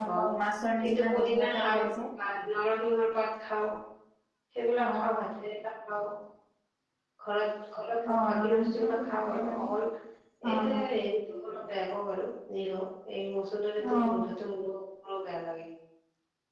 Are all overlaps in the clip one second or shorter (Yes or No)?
No